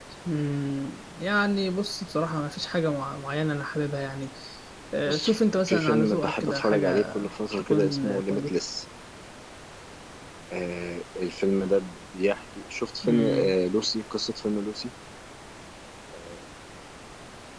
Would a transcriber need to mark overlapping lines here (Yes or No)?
Yes